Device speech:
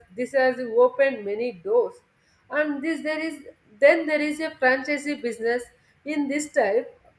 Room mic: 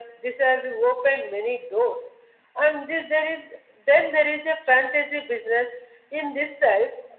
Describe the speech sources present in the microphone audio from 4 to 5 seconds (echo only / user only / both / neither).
echo only